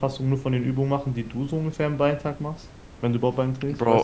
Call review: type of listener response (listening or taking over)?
taking over